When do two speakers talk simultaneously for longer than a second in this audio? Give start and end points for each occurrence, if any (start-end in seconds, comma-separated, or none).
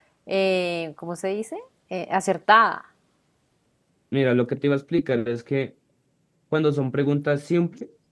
none